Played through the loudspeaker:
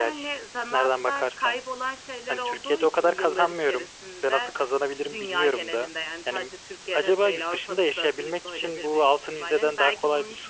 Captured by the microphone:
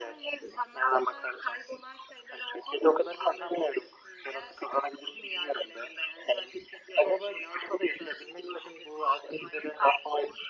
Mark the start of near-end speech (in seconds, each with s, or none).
none